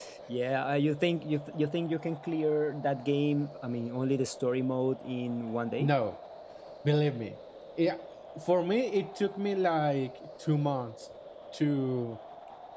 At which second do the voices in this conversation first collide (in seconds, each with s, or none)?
none